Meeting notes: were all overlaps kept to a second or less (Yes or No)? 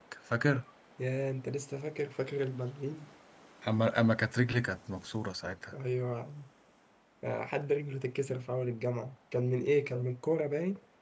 Yes